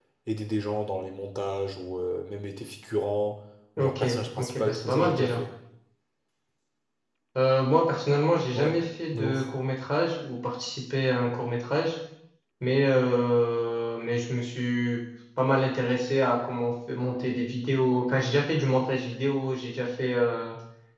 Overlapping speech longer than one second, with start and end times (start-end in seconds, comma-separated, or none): 3.8-5.4